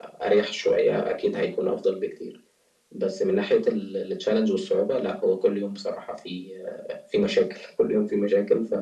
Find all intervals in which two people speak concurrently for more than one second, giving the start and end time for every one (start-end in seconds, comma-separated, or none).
none